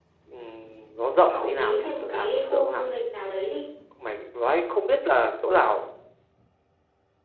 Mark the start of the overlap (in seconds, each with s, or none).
1.3 s